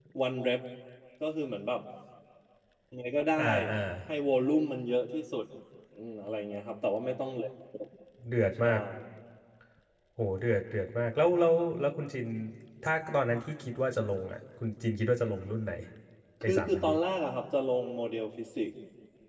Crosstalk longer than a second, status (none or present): none